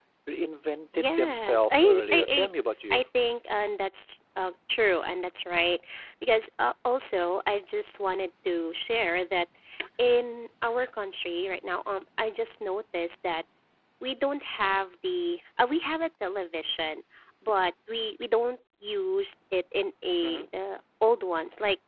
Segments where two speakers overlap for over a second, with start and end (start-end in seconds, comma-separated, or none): 0.9-2.5